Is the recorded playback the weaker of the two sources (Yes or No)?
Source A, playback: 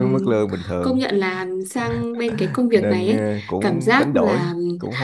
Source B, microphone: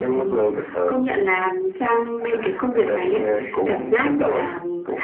No